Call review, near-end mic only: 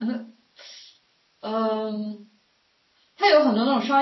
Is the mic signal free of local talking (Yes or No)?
Yes